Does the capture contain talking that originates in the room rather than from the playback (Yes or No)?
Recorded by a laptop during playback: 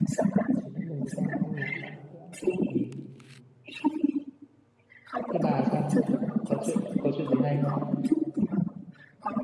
Yes